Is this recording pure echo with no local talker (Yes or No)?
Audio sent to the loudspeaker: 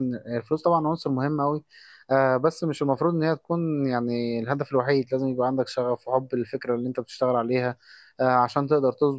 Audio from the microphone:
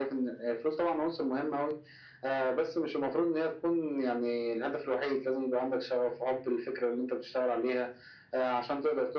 Yes